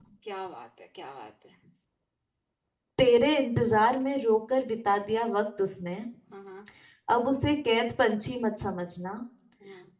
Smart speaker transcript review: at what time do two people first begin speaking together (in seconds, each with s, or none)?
none